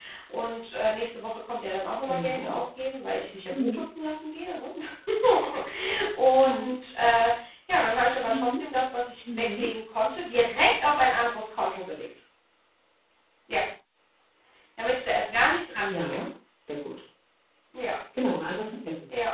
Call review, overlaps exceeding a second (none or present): none